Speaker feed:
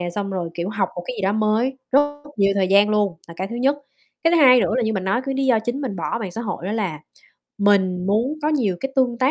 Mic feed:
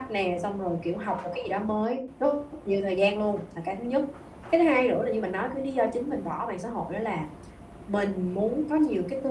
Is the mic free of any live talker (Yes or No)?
Yes